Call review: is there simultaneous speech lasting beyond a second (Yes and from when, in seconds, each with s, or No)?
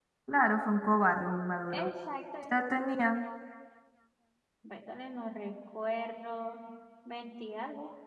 No